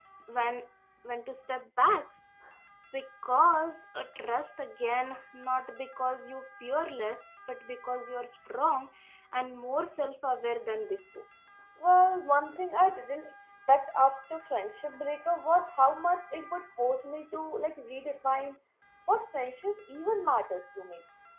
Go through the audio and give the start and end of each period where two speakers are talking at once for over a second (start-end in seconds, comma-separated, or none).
none